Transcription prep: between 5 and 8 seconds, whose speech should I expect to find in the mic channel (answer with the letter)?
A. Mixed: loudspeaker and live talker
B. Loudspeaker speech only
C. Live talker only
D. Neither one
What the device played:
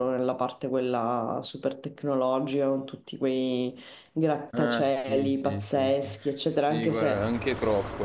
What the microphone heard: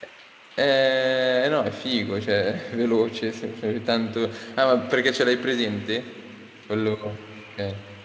C